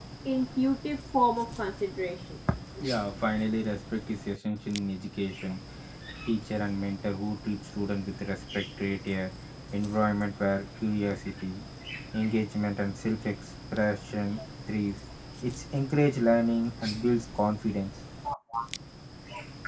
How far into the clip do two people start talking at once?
none

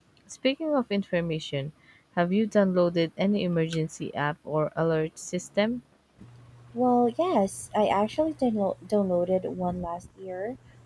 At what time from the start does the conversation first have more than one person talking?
none

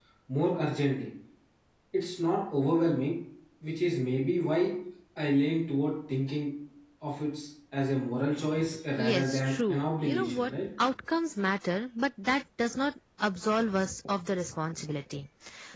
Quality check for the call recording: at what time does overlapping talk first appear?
9.0 s

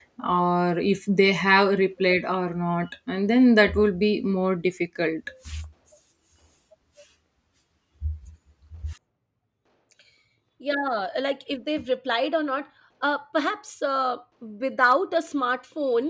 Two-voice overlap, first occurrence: none

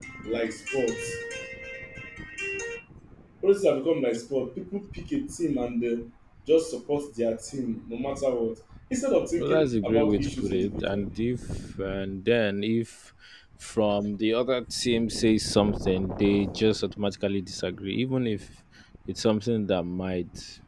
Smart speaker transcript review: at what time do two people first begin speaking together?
9.4 s

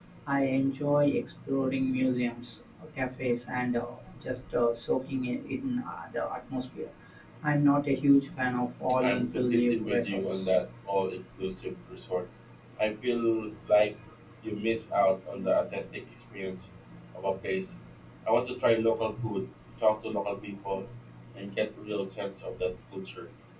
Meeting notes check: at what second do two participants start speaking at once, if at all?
8.9 s

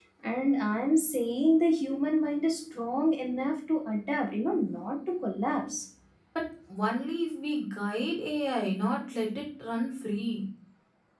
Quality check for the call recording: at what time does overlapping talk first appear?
none

